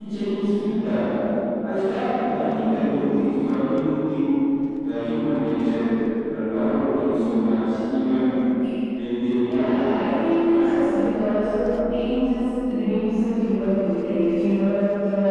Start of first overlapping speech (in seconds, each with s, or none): 9.4 s